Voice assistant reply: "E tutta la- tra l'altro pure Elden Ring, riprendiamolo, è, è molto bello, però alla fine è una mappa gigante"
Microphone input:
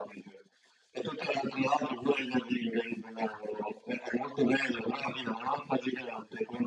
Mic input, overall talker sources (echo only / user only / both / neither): echo only